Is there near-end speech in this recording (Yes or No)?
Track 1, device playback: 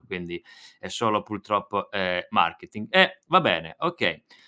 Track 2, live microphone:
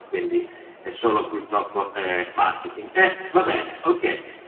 No